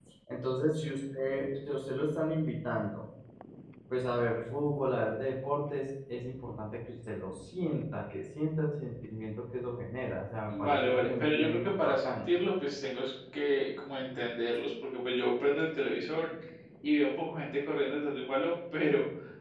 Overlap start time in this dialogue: 10.5 s

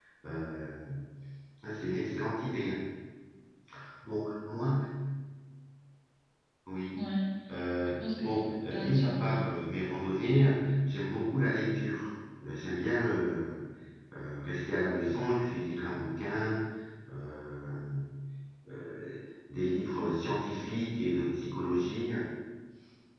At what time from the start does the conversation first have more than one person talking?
7.9 s

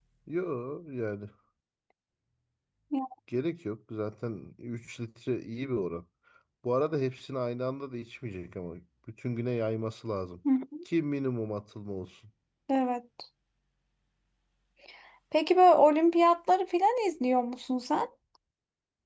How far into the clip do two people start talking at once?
none

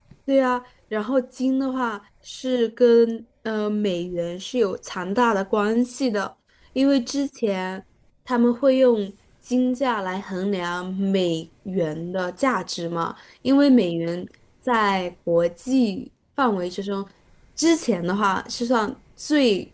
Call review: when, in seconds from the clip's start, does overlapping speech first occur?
none

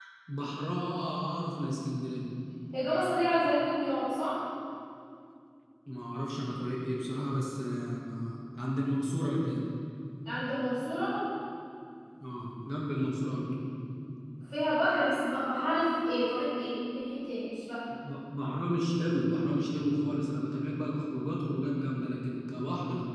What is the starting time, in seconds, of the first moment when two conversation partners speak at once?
none

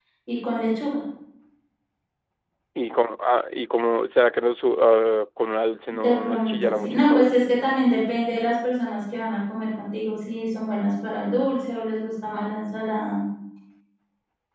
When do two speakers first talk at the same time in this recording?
5.9 s

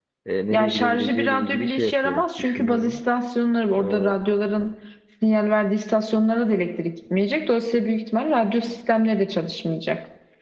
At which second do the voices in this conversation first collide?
0.5 s

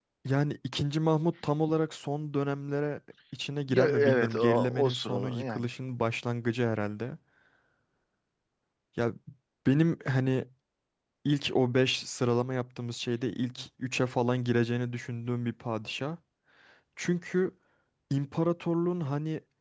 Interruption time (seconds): 3.7 s

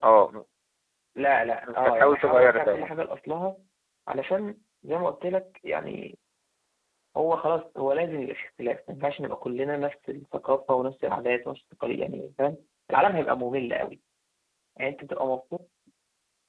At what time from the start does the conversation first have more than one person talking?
1.6 s

